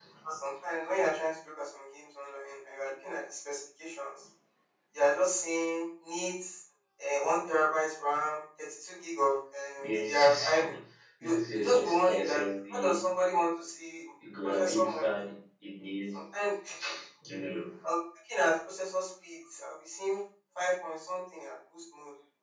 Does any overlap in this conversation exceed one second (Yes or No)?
Yes